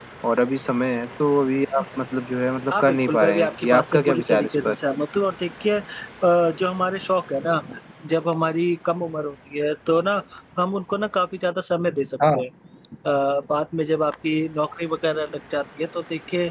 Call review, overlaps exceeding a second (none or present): present